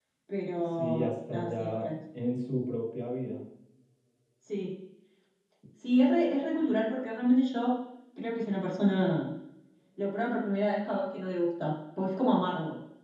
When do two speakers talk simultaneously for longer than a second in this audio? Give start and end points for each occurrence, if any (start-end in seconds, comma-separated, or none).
0.6-1.9